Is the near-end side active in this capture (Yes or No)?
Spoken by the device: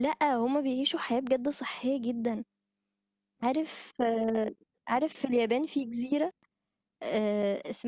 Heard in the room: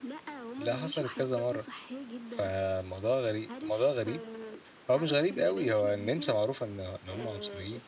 Yes